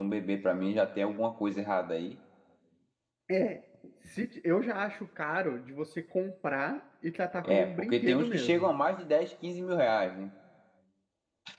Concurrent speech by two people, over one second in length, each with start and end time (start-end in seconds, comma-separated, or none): 7.4-8.7